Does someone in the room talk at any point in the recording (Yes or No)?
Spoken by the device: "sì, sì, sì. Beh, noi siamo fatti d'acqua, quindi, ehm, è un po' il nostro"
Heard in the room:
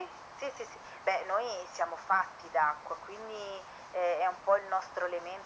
No